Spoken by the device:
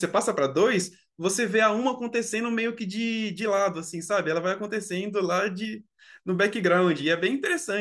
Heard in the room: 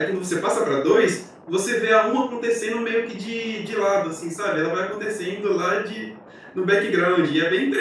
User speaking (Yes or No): No